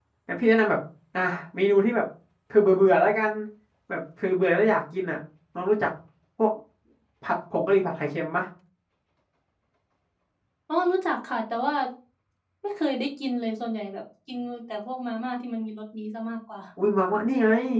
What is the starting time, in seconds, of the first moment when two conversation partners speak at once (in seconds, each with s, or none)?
none